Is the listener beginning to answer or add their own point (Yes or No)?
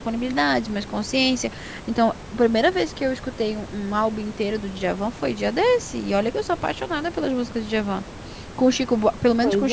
No